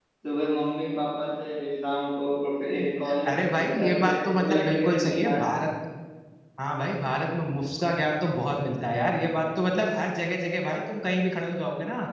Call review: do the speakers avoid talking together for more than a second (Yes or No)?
No